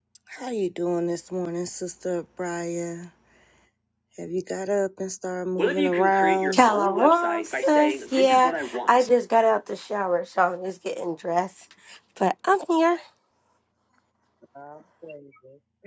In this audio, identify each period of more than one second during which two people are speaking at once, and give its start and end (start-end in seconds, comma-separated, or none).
6.5-9.1